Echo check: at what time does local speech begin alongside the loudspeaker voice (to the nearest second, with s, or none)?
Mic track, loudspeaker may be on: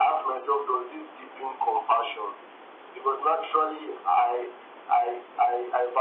none